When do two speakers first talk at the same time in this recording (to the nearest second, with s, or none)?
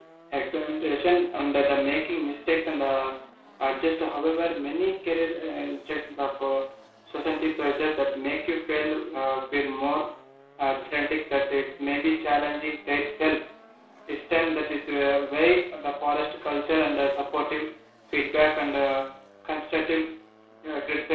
none